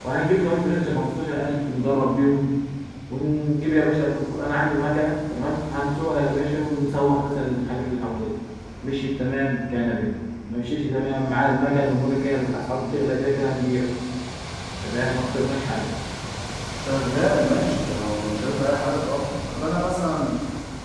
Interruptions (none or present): none